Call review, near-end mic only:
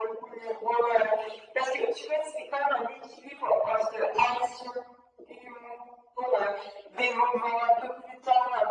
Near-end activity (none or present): none